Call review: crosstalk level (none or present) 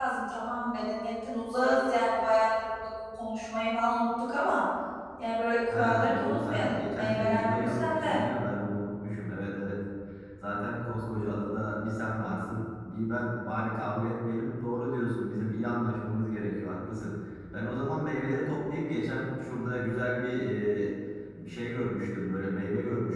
present